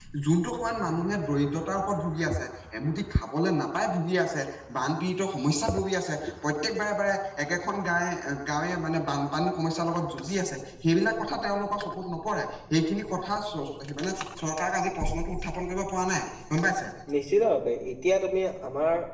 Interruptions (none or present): none